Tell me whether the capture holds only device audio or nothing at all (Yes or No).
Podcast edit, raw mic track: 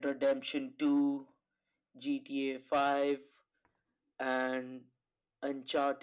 Yes